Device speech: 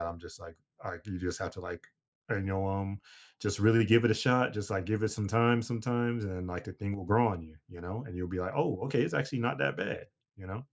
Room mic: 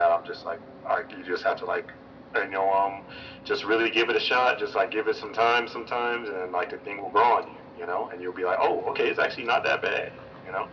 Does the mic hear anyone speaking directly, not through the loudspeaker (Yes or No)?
No